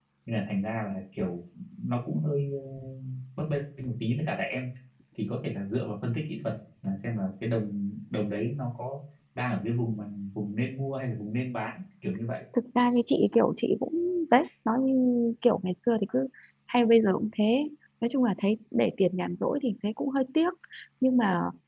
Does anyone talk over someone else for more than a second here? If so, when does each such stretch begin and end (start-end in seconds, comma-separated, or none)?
none